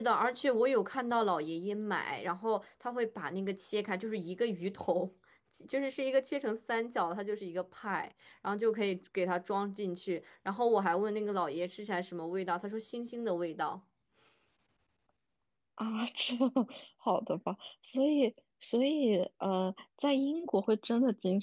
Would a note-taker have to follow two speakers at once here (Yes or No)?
No